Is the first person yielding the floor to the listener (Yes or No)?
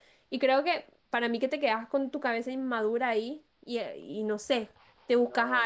No